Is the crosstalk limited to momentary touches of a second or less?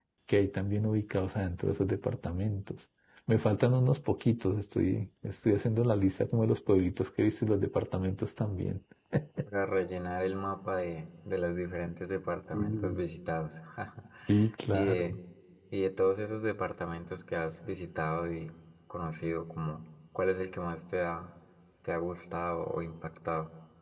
Yes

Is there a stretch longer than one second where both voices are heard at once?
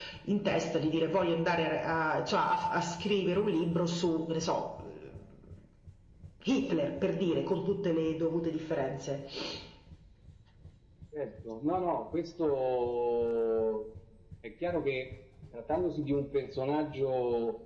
No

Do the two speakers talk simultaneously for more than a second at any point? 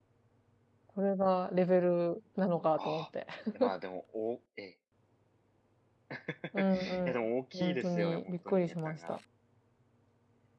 Yes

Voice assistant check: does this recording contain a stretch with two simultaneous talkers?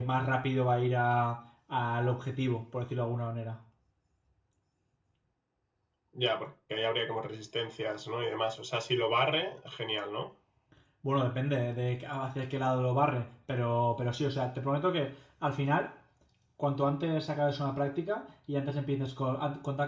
No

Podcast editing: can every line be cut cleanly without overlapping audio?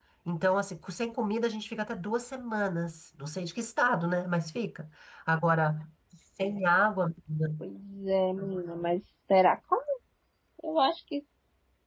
Yes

